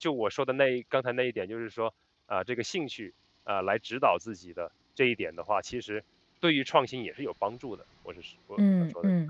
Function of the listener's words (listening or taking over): taking over